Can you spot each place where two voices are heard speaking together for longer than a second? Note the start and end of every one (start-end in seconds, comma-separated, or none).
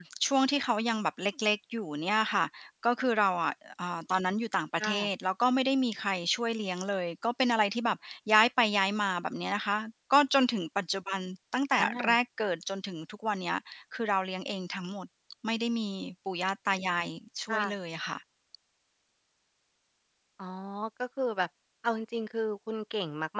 none